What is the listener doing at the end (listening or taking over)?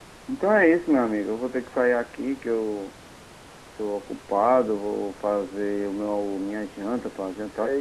taking over